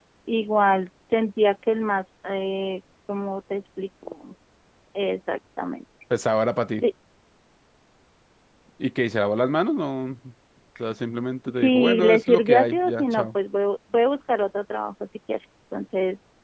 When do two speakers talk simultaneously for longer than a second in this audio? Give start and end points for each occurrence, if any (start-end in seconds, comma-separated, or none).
11.5-13.3